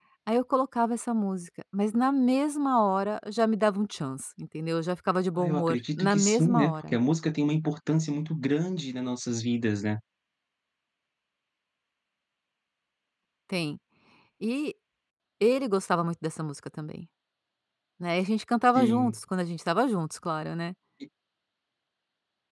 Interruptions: present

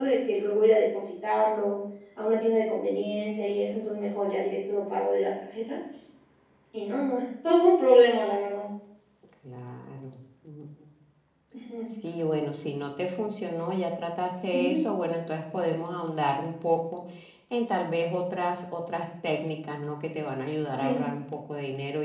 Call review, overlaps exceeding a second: none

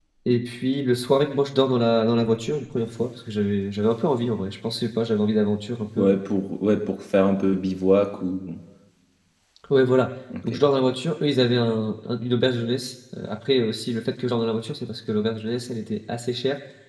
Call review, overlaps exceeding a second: none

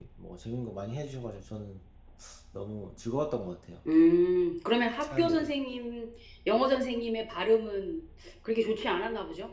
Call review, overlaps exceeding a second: none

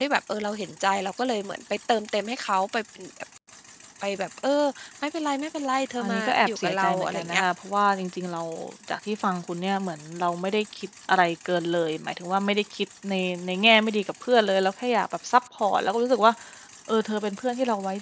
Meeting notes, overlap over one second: present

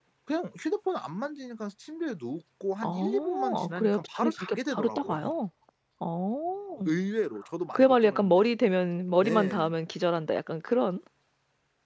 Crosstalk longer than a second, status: present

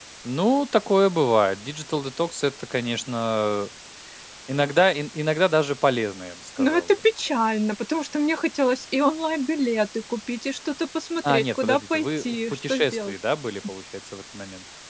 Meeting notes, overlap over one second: present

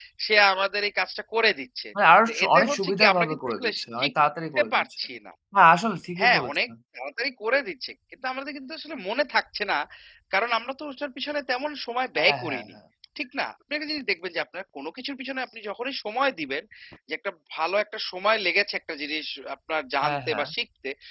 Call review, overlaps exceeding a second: present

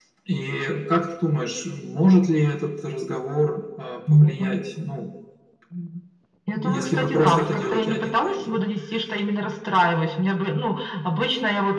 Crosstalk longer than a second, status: present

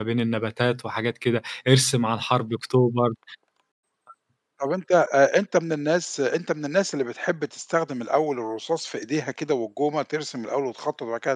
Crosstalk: none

